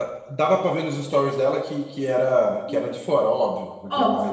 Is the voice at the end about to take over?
Yes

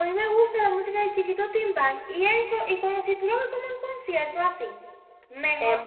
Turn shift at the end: Yes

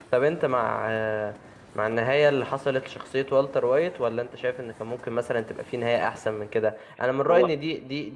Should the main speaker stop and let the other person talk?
No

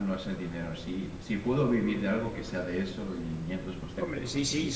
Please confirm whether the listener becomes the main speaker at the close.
Yes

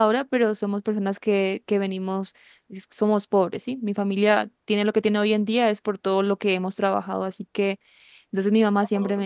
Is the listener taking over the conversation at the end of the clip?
No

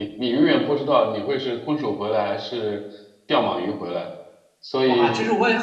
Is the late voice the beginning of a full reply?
Yes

